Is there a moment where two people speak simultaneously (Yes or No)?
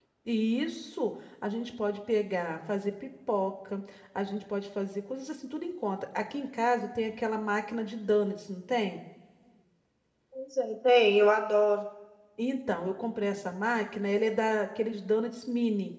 No